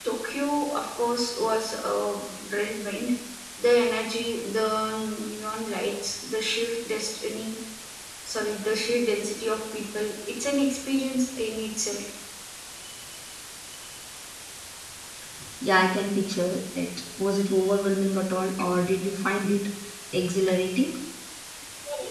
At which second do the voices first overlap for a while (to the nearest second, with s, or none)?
none